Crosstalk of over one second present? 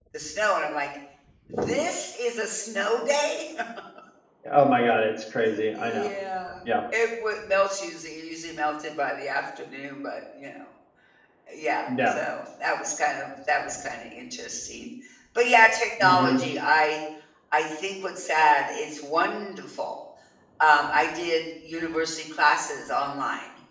No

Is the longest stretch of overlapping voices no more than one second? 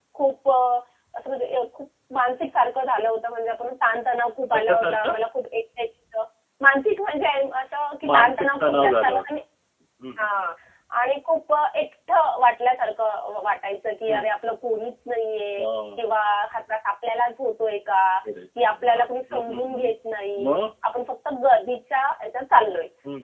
No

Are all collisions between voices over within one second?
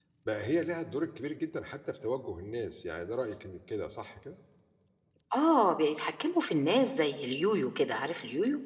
Yes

